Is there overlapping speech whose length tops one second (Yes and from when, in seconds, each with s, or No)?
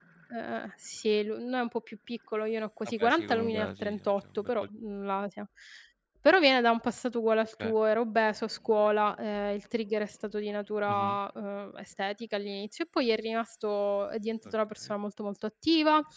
Yes, from 2.8 s